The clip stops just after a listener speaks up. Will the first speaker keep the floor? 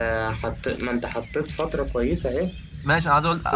No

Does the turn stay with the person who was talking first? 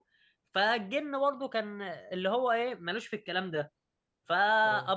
Yes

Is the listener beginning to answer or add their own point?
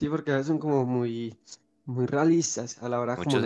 Yes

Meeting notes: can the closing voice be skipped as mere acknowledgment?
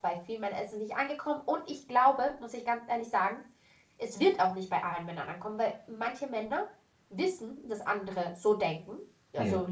Yes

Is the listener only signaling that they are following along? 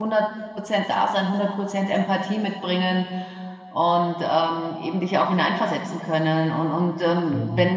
Yes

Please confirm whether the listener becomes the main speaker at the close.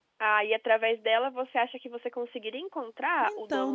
Yes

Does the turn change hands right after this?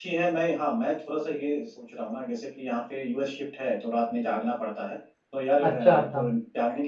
No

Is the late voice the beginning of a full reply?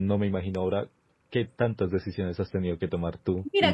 Yes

